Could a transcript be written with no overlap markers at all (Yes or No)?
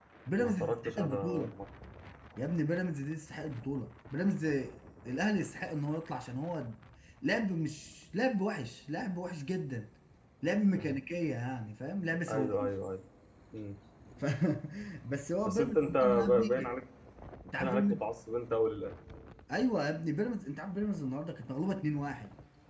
No